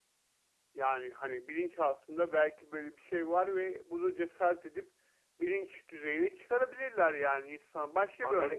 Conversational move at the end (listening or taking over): taking over